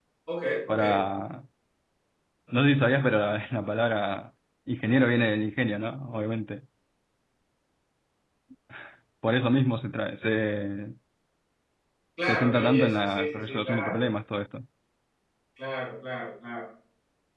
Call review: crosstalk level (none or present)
present